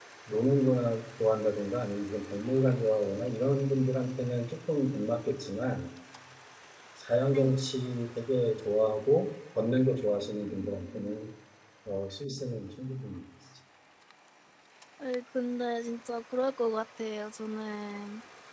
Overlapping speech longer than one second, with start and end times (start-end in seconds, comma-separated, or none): none